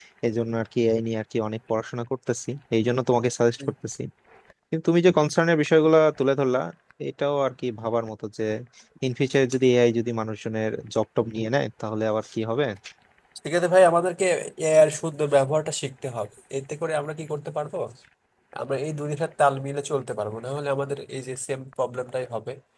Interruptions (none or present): none